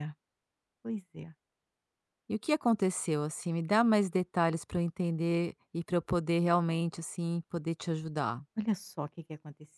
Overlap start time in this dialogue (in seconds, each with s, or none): none